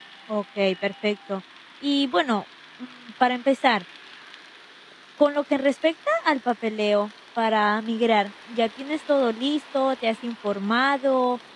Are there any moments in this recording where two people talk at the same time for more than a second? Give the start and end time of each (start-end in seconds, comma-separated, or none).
none